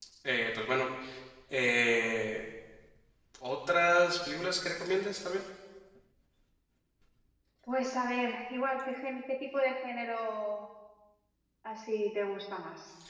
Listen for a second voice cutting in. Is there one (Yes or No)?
No